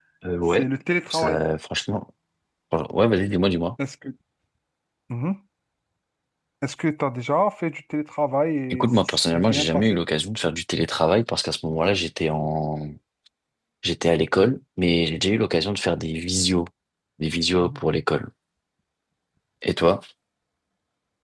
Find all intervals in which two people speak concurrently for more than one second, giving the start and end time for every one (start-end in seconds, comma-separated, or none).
8.7-10.0